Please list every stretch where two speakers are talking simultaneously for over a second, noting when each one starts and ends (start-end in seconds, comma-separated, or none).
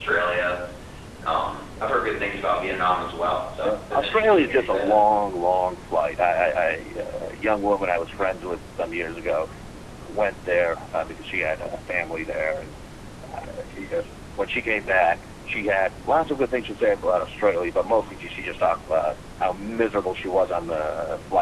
3.6-4.9